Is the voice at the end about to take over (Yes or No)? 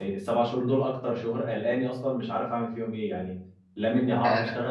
No